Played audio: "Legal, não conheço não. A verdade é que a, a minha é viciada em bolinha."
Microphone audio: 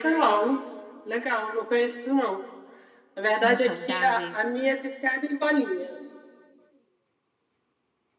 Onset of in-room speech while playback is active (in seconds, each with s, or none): 3.4 s